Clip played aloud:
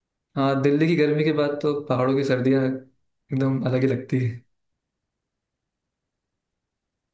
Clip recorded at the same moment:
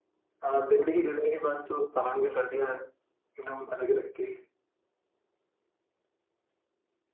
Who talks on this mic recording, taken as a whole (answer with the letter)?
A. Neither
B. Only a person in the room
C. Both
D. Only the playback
C